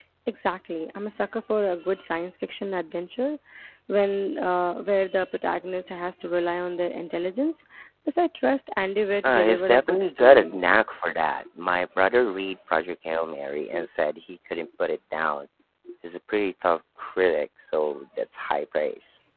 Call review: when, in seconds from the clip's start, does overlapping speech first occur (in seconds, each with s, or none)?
9.2 s